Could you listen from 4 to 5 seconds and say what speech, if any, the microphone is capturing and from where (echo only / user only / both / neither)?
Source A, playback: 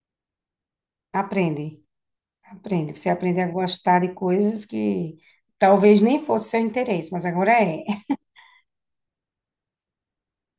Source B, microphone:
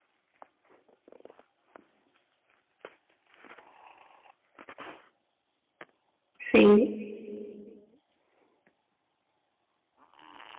neither